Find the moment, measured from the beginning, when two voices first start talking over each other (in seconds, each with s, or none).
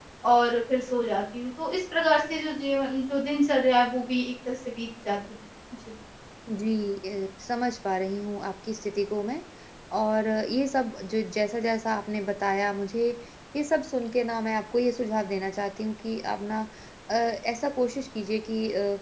none